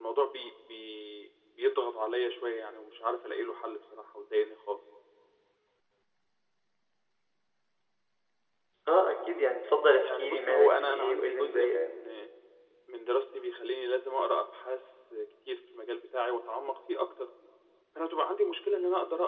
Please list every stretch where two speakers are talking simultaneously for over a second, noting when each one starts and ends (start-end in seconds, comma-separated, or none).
10.0-11.9